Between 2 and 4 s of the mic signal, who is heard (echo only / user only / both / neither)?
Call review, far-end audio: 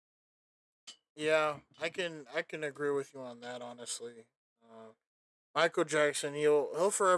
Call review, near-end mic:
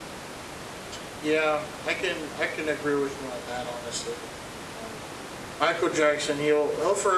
echo only